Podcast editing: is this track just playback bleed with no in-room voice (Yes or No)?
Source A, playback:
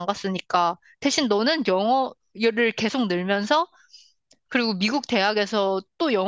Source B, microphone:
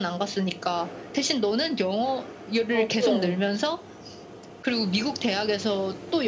No